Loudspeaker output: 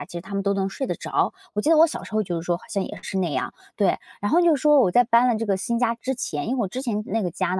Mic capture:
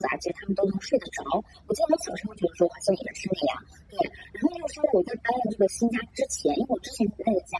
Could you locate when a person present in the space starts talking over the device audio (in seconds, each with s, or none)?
none